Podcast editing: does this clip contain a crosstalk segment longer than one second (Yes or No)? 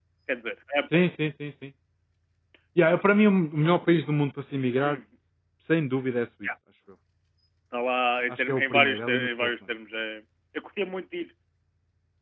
Yes